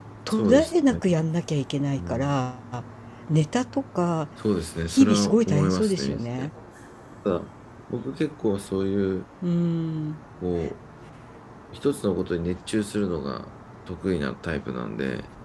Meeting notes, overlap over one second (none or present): present